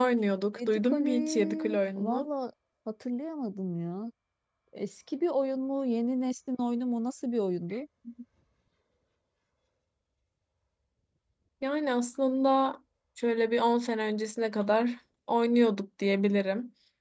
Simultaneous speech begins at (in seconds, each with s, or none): 0.6 s